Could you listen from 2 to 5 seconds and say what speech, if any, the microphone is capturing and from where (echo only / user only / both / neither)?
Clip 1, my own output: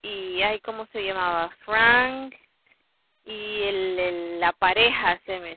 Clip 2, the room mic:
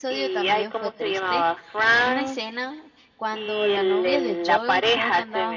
both